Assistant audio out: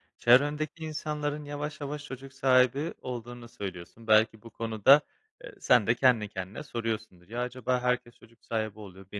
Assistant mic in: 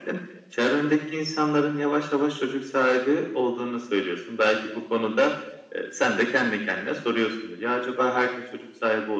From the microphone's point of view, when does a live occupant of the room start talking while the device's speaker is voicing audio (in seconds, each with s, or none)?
none